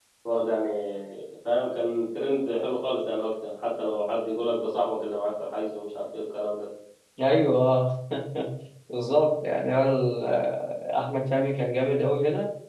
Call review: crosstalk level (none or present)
none